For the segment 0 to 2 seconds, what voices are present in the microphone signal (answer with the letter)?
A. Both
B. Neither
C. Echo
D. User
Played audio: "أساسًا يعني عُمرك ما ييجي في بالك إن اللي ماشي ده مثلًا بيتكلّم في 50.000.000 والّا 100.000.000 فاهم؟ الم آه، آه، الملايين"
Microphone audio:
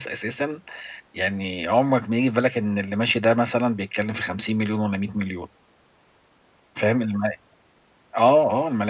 C